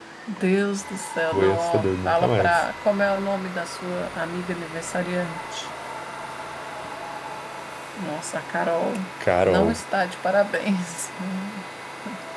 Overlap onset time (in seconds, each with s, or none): 1.3 s